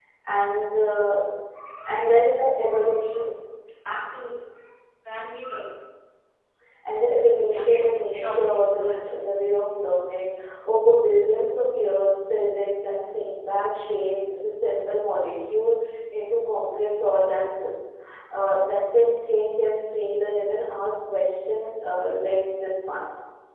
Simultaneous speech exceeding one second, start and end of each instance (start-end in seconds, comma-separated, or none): 7.5-9.1